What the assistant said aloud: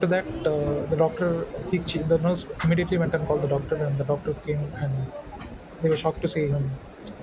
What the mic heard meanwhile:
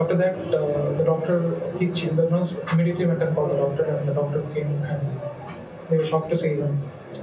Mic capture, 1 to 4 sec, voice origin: echo only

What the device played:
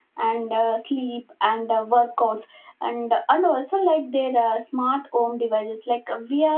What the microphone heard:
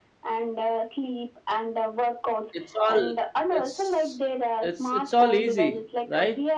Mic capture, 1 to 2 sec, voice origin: echo only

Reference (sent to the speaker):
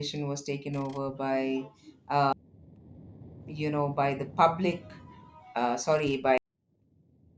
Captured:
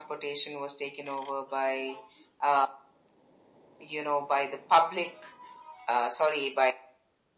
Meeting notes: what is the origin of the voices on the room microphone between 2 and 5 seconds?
echo only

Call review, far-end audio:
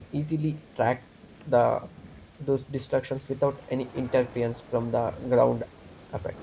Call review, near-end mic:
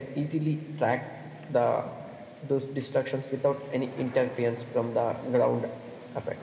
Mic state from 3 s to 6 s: echo only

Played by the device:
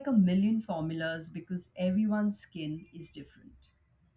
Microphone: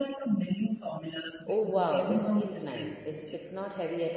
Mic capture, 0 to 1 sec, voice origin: echo only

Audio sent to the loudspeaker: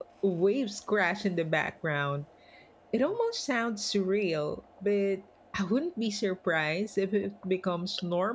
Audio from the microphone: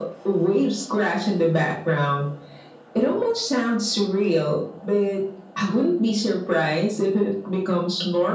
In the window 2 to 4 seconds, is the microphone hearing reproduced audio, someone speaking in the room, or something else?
echo only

